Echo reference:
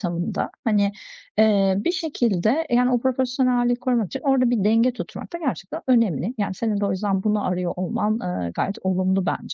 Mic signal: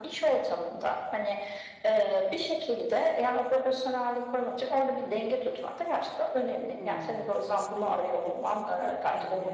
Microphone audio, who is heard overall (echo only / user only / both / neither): both